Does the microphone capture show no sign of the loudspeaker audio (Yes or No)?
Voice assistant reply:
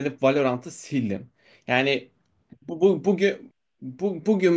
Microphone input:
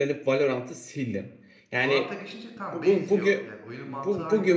No